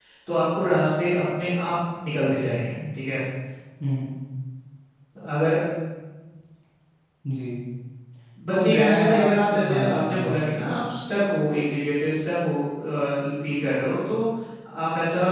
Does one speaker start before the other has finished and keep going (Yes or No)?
Yes